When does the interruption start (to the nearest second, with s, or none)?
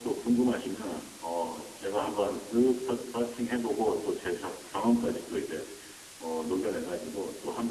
none